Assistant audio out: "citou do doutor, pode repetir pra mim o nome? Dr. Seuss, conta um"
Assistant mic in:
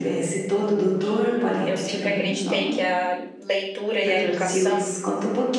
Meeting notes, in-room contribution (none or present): present